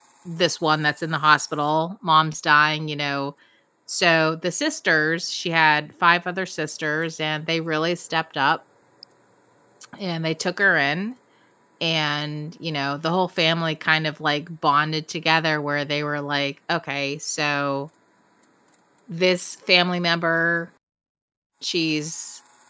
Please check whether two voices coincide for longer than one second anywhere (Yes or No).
No